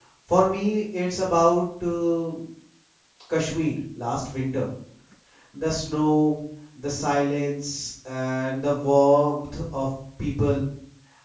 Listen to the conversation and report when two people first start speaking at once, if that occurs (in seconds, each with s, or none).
none